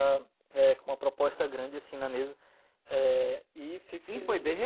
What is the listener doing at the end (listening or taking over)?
taking over